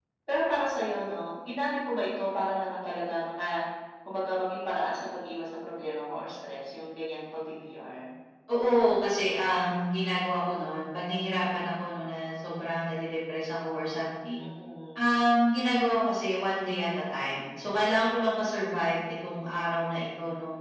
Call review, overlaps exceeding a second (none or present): none